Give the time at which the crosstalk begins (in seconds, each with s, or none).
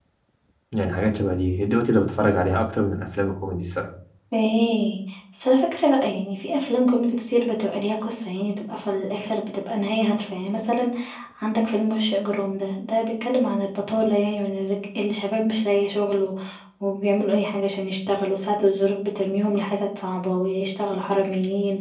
none